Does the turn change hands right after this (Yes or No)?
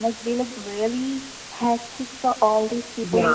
No